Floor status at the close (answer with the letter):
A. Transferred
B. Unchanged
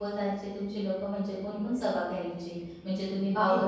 B